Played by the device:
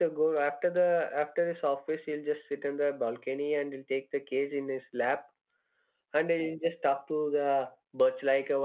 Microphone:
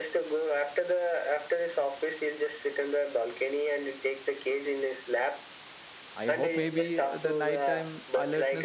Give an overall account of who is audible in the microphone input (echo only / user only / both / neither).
both